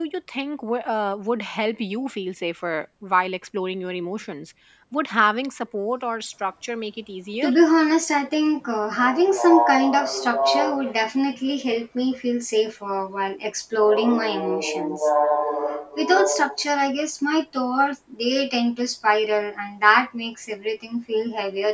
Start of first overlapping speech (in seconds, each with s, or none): none